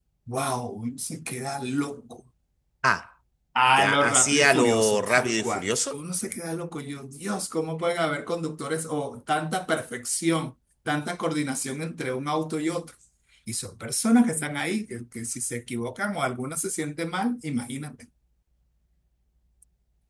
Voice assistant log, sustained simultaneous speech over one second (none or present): present